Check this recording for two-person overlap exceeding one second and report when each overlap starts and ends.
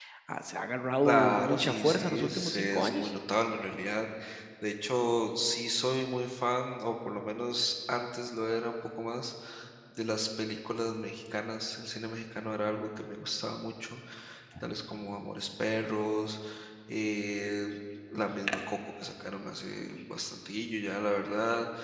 1.0-3.1

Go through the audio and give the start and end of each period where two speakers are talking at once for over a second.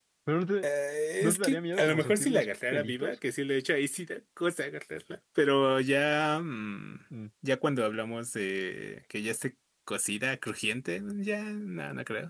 1.2-3.1

